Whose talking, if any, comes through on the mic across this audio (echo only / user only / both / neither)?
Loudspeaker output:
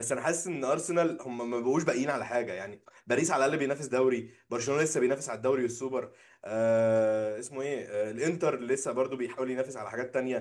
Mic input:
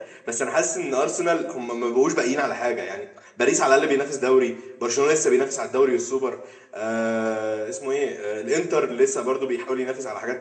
echo only